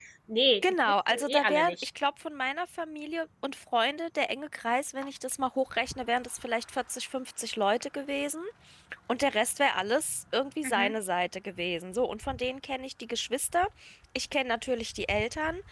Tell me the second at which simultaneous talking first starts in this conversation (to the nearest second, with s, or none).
1 s